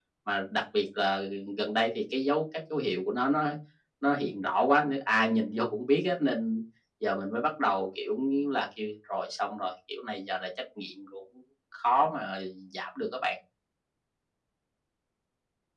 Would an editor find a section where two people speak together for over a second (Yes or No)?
No